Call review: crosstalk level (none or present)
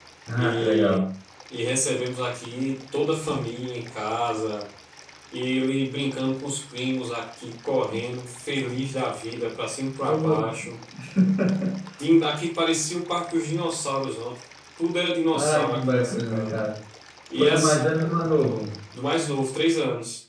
present